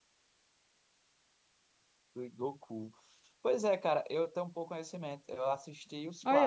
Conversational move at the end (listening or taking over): taking over